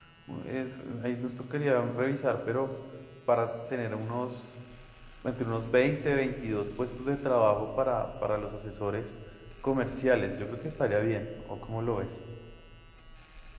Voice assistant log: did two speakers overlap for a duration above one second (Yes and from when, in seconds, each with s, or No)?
No